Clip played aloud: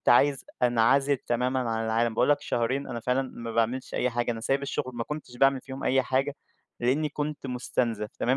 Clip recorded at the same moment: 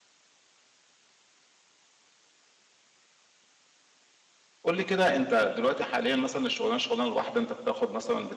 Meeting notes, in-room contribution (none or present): present